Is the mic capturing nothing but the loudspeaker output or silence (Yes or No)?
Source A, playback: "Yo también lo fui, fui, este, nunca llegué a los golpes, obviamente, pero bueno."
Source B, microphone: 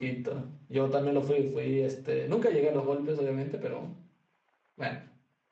Yes